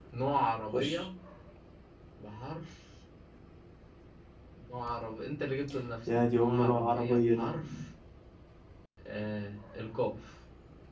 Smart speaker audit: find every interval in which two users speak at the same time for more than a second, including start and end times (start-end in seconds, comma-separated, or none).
6.3-7.5